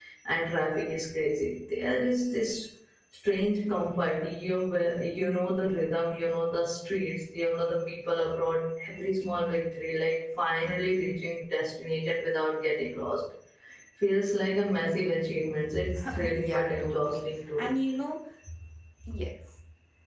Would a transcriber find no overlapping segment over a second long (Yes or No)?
No